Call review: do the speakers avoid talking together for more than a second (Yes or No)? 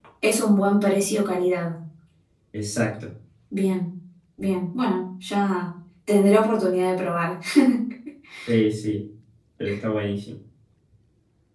Yes